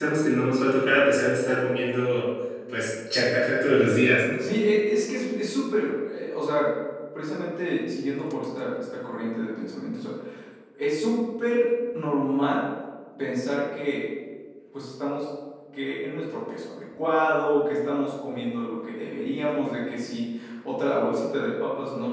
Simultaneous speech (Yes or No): No